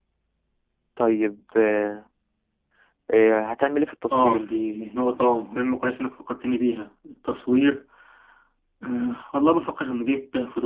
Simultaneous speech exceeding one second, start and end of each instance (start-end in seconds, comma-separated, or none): none